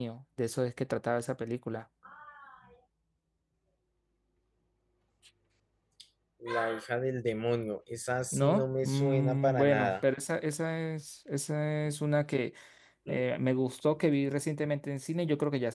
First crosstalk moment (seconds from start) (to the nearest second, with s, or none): 8 s